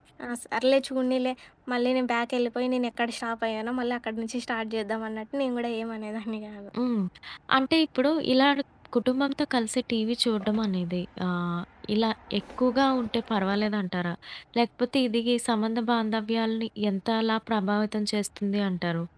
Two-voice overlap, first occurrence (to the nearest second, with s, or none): none